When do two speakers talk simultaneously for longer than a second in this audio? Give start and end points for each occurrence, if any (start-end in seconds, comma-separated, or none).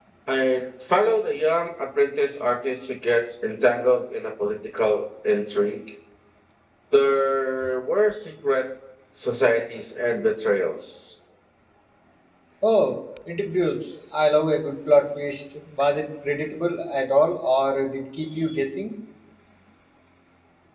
none